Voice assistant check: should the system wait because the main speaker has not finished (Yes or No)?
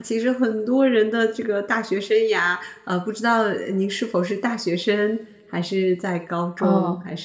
No